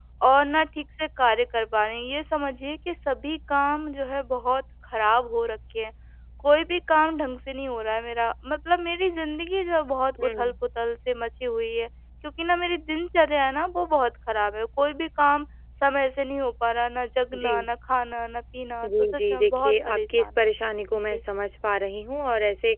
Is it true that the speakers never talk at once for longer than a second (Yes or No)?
No